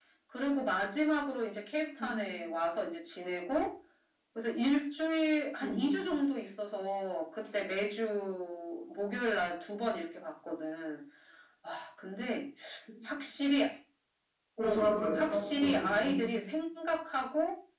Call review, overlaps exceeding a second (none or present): present